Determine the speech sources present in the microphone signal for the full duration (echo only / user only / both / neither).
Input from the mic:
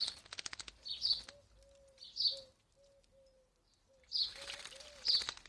neither